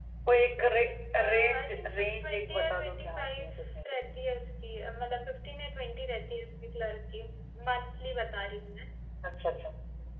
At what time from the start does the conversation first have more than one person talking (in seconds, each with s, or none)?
1.2 s